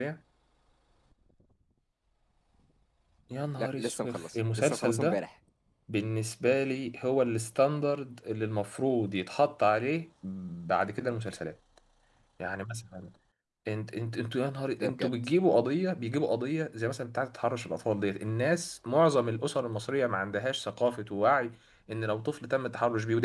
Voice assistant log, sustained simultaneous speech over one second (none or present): present